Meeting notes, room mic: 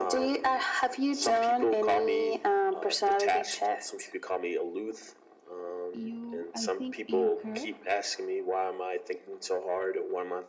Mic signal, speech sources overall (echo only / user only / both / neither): both